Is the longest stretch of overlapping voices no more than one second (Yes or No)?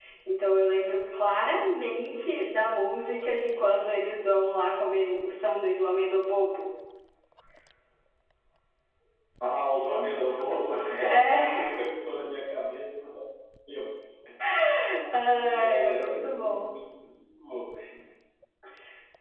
No